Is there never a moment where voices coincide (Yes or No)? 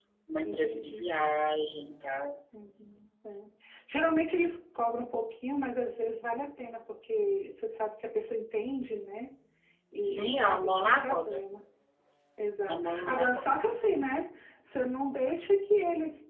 No